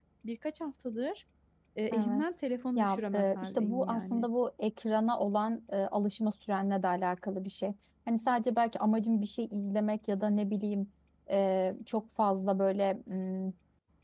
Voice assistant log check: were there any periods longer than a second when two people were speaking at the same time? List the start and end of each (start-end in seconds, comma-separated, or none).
2.8-4.3